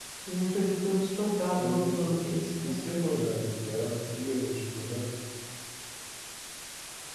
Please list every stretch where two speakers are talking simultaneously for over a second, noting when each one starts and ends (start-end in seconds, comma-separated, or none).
none